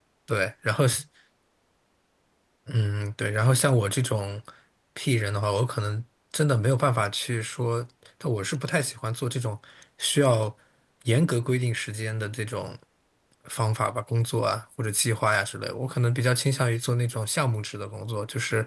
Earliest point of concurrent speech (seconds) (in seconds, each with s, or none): none